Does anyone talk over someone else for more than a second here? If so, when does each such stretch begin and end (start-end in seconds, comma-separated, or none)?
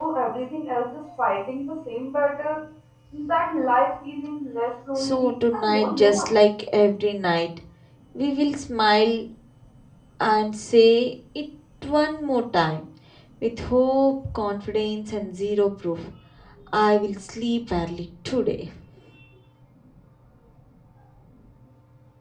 5.0-6.3